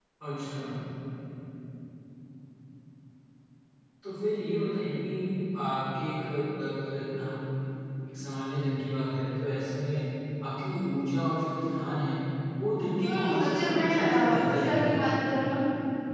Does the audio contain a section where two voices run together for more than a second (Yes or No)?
Yes